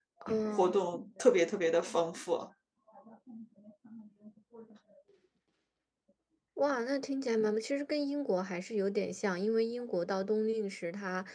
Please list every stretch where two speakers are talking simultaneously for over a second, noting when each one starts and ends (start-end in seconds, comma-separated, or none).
none